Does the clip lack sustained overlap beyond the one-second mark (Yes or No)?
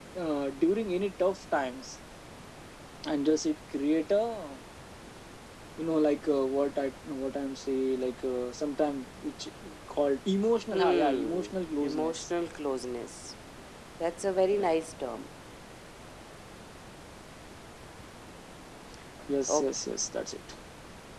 No